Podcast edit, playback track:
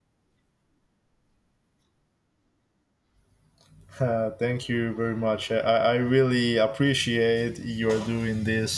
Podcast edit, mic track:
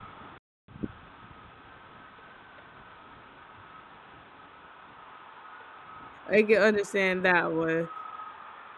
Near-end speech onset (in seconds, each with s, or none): 6.3 s